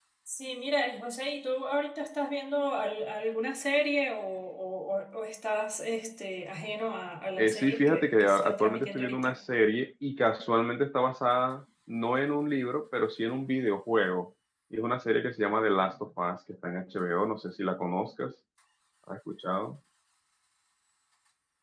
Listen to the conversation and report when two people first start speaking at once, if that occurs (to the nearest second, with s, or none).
7 s